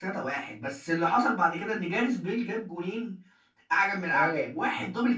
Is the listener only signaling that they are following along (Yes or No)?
Yes